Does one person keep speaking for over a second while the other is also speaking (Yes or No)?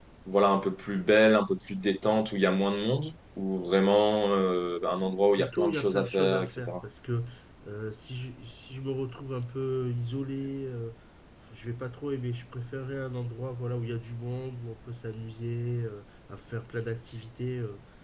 Yes